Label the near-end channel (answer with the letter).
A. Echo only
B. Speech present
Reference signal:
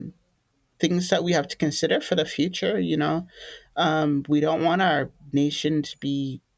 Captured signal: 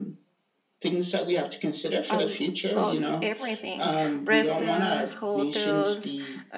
B